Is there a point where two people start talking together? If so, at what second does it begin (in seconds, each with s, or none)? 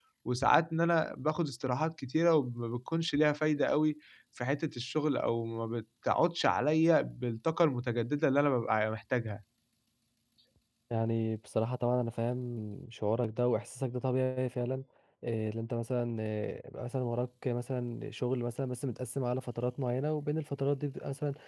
none